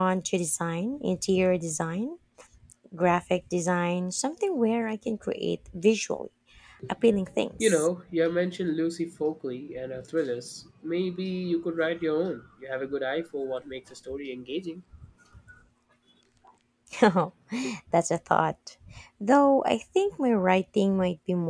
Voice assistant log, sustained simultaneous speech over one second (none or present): none